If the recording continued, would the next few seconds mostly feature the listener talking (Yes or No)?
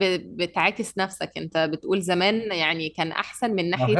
Yes